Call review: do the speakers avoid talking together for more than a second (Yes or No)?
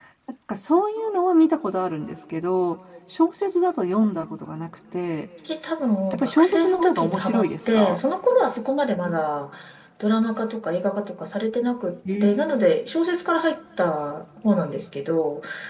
No